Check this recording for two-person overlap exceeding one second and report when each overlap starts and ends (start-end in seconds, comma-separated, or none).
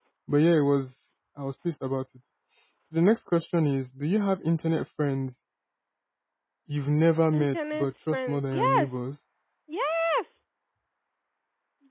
7.3-9.0